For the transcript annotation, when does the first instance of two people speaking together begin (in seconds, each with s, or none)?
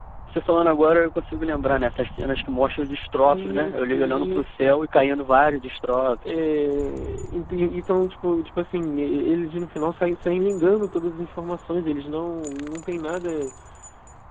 3.2 s